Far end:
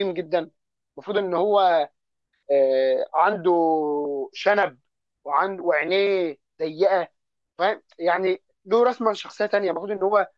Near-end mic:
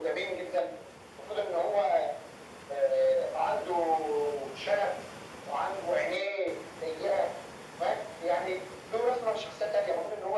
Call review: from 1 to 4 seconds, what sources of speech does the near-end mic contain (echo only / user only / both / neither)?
echo only